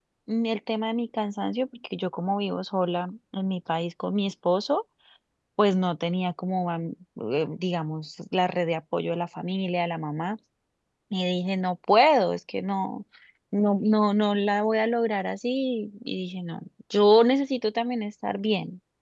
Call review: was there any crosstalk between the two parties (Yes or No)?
No